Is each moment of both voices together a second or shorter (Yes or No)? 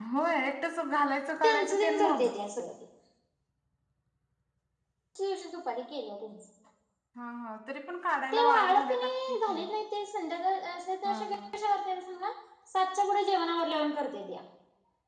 No